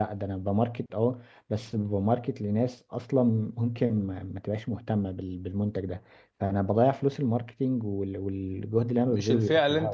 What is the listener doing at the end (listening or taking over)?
taking over